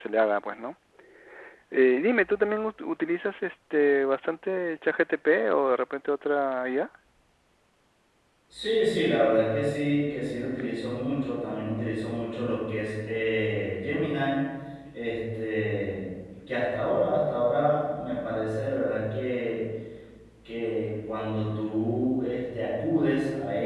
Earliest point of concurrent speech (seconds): none

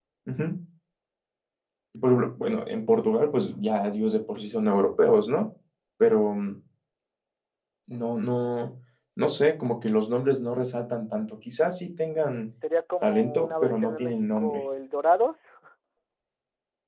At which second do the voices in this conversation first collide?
13 s

